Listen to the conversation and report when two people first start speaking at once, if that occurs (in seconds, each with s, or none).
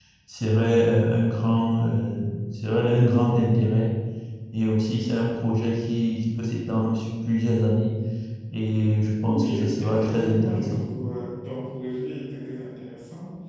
9.3 s